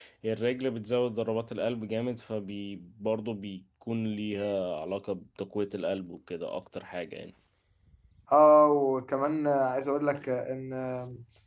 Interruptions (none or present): none